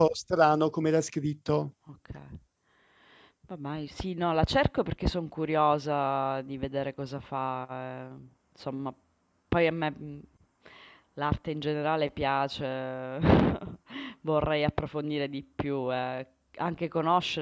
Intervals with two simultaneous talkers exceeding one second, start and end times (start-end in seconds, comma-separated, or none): none